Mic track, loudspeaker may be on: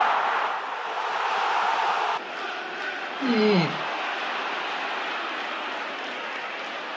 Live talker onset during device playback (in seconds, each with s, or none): 3.2 s